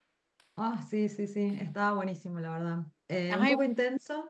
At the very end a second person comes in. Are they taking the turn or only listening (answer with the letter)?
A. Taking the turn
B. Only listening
B